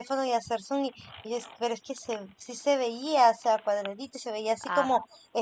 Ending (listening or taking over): listening